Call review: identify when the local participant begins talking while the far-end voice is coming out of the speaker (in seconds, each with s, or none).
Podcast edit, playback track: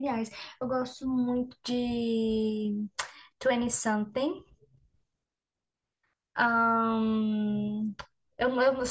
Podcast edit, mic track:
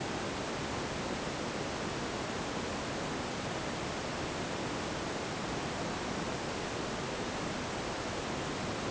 none